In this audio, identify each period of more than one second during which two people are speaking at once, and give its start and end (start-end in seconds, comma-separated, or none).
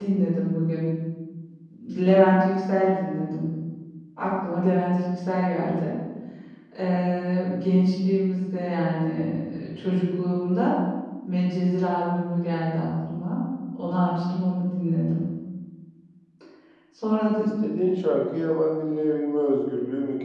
none